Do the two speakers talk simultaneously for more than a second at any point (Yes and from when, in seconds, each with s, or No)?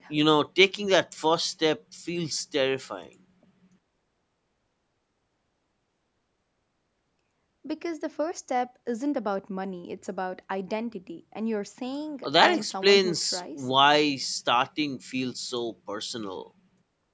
Yes, from 12.2 s